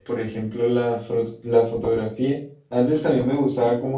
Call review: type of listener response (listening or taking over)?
listening